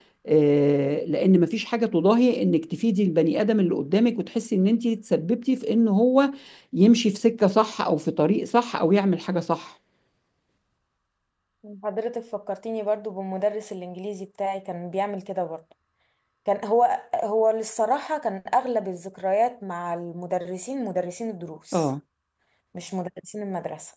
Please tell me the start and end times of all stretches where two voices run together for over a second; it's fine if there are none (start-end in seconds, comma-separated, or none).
none